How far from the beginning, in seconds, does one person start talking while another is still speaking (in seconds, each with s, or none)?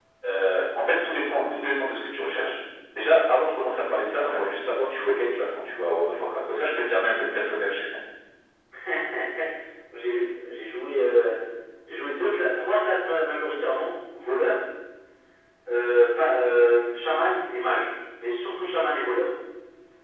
none